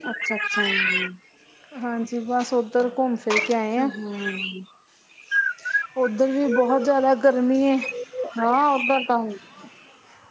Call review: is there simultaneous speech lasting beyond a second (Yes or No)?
No